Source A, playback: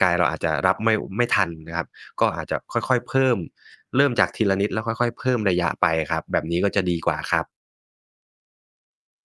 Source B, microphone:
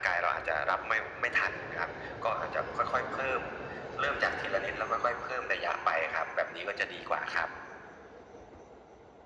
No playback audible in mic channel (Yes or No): No